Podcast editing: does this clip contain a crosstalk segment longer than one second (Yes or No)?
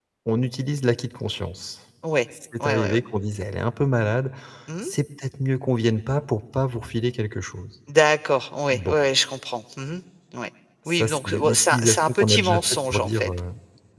Yes